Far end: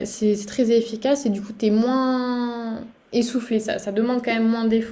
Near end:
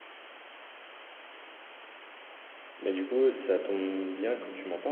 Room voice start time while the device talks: 3 s

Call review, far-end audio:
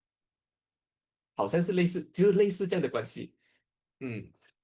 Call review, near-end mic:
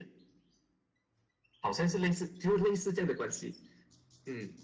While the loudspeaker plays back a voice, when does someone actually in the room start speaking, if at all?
none

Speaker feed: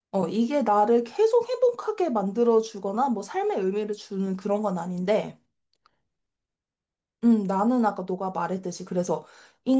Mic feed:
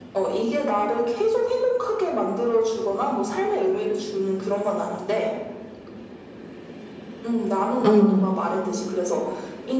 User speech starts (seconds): 8 s

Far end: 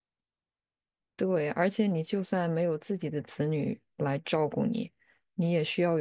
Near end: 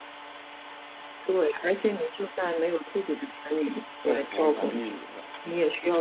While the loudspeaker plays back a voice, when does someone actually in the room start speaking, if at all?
4 s

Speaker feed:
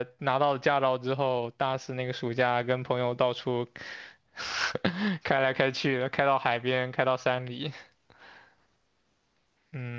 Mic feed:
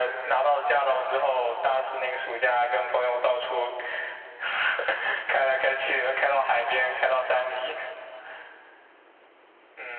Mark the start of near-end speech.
none

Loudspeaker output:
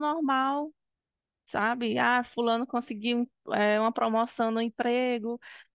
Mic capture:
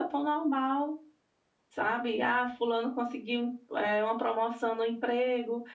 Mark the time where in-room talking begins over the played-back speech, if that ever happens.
none

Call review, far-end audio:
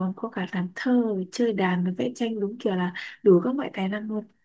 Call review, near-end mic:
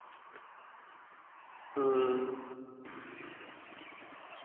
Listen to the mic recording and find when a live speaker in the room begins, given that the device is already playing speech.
2 s

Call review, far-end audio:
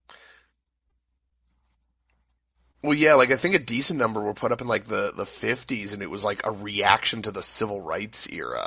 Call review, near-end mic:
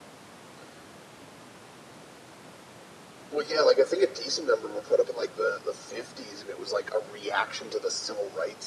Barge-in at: none

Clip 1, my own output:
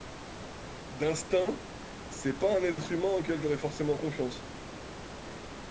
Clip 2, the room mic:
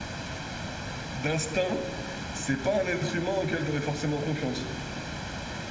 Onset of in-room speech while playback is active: none

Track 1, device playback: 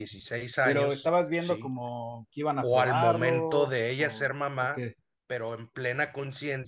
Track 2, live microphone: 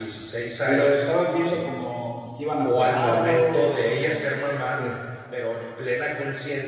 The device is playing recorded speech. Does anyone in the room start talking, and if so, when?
none

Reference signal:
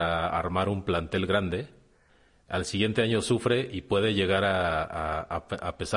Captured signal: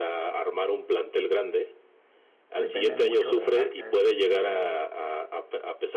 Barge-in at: 3 s

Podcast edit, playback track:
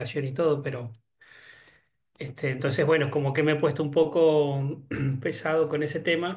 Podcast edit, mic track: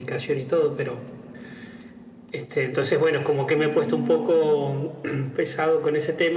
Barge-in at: 4 s

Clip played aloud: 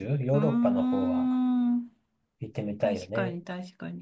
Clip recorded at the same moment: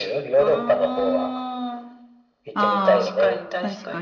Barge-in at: 3 s

